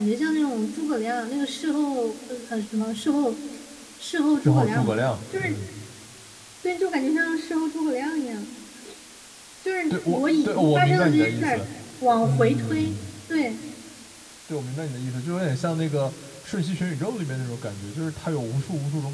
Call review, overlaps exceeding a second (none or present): present